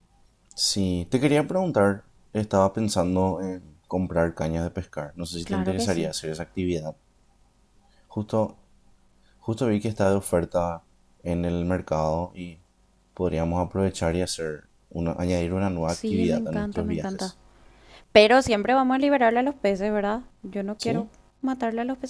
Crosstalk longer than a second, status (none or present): present